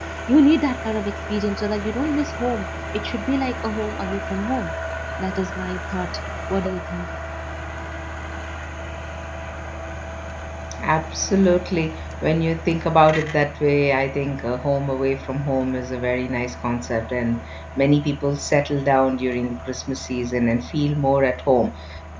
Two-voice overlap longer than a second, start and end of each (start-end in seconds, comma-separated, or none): none